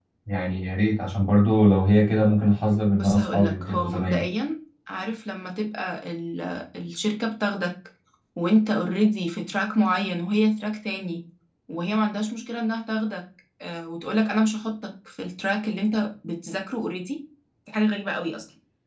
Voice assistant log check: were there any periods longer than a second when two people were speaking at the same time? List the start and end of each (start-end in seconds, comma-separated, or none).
3.0-4.2